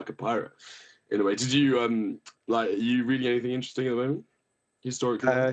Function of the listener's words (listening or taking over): taking over